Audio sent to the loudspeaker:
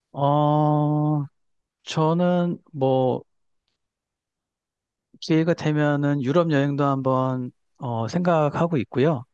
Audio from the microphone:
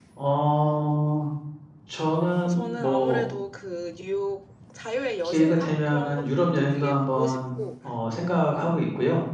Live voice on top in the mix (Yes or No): No